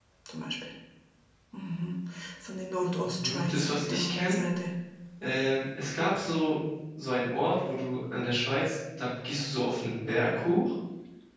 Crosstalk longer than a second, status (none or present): present